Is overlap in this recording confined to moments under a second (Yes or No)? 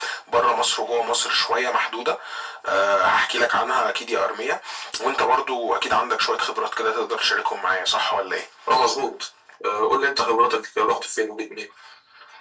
Yes